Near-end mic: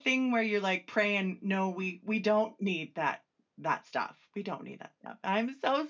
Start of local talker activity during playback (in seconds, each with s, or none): none